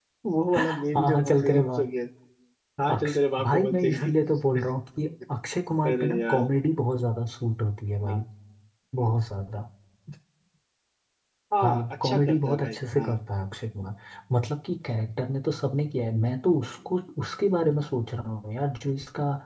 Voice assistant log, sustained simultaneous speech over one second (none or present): present